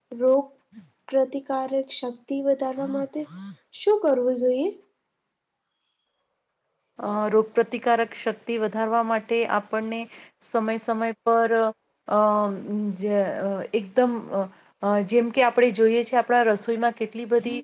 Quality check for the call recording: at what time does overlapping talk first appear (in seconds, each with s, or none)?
none